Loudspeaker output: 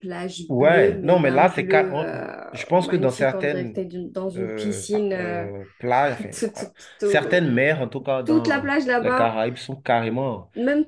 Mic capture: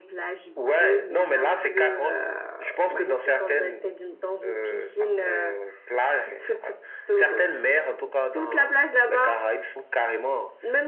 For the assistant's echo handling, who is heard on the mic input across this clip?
echo only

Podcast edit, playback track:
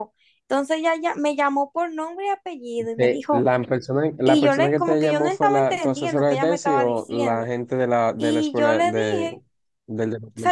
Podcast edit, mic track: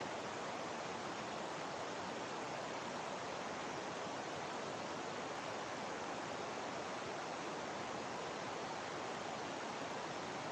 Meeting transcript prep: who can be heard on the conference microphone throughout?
neither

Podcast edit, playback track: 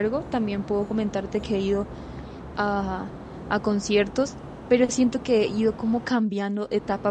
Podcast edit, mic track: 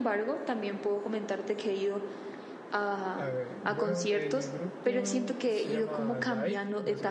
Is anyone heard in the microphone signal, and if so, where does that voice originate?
both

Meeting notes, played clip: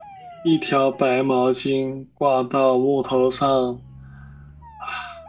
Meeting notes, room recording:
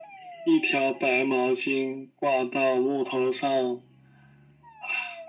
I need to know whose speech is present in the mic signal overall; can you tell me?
echo only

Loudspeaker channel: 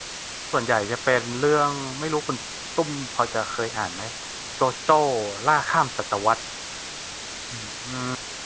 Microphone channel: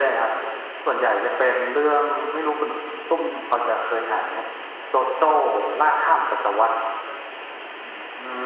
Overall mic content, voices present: echo only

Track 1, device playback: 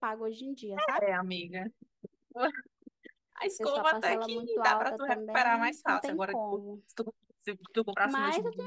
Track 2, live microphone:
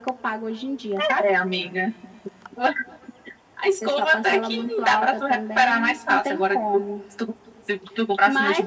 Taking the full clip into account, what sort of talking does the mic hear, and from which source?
echo only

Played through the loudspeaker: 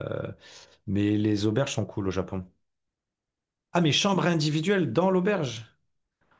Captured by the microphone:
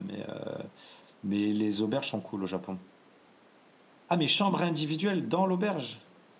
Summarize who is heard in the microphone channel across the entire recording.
echo only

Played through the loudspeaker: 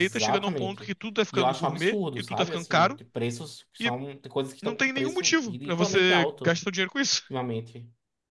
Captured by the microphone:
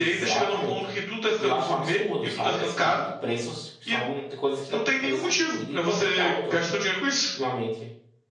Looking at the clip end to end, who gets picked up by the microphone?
echo only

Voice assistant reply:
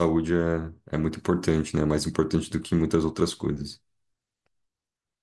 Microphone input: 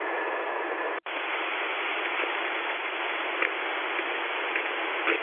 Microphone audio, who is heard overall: neither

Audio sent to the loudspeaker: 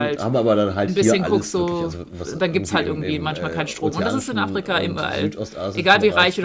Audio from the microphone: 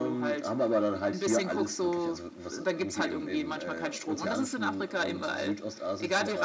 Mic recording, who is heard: echo only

